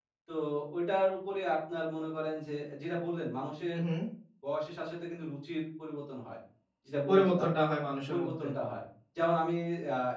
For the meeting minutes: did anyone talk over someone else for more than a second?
No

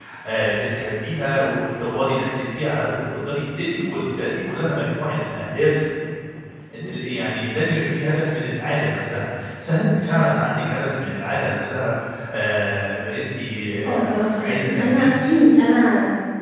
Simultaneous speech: Yes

